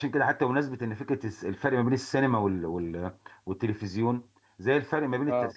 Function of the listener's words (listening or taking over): listening